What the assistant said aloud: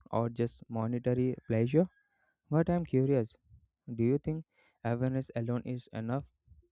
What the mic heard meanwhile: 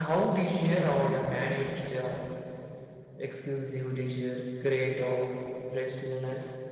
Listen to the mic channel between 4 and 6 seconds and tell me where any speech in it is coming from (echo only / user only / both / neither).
user only